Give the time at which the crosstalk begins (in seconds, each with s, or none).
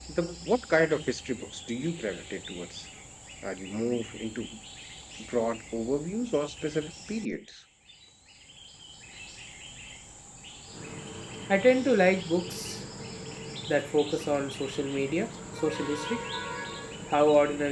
none